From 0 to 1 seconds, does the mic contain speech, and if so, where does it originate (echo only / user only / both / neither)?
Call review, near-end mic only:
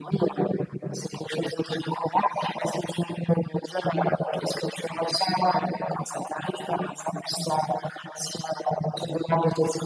echo only